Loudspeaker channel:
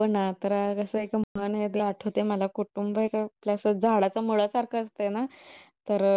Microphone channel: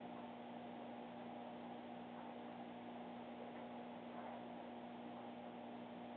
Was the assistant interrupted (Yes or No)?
No